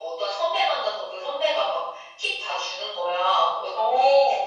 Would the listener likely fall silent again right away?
Yes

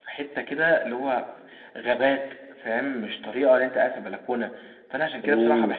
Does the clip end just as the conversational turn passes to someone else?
No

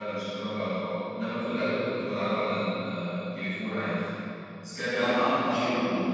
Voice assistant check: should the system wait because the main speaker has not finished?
No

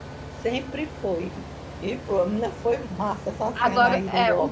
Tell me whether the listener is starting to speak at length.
Yes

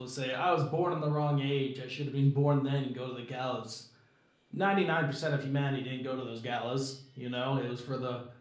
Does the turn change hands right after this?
No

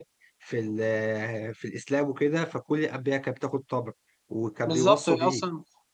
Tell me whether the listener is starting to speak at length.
Yes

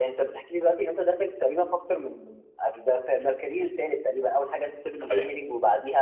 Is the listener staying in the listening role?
Yes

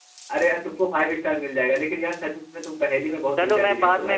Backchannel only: No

